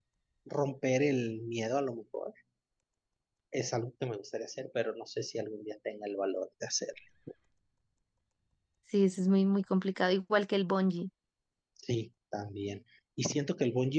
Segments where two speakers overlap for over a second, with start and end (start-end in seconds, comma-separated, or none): none